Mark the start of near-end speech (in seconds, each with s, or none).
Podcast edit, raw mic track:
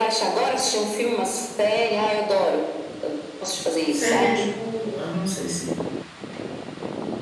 3.9 s